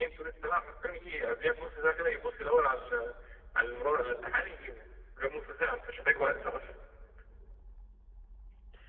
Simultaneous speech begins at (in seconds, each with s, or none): none